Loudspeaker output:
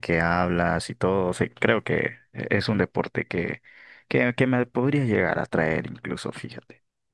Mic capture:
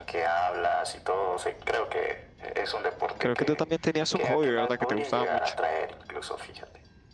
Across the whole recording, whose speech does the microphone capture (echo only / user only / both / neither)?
both